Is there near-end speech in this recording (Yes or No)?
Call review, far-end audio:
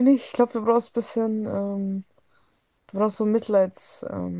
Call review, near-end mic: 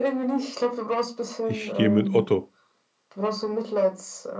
Yes